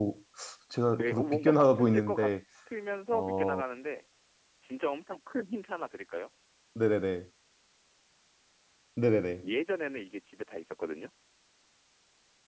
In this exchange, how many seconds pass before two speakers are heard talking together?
0.9 s

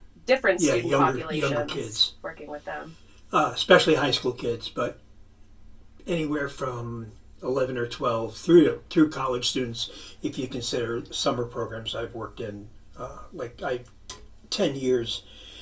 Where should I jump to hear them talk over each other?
0.6 s

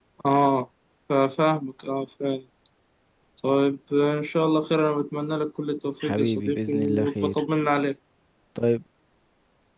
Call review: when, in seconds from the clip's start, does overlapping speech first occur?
6.0 s

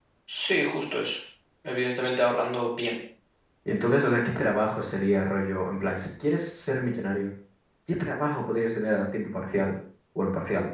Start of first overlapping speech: none

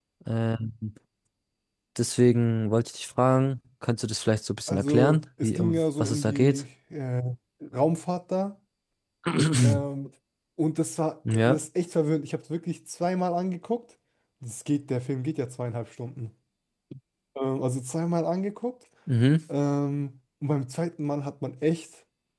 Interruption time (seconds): 4.7 s

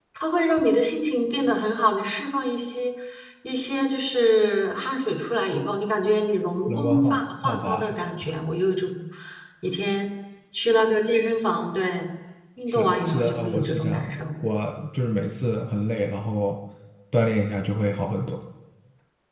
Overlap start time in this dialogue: 6.7 s

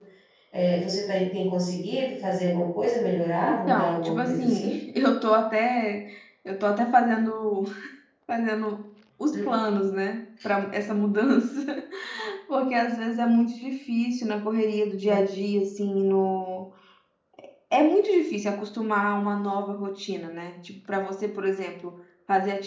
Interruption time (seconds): 3.4 s

